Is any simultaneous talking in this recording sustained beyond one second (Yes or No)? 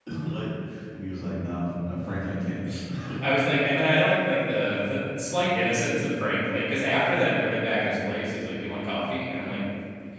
No